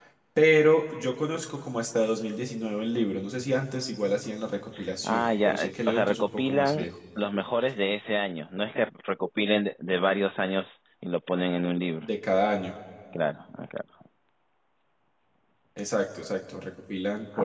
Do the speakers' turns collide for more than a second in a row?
Yes, from 5.0 s

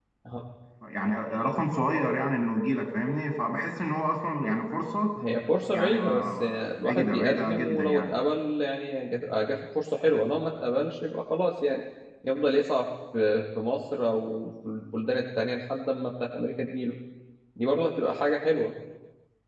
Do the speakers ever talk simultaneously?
Yes, from 5.7 s

